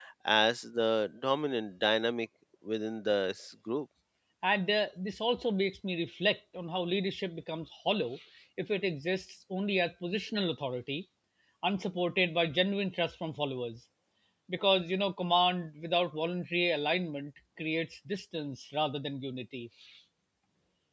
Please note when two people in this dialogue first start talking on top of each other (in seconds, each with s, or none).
none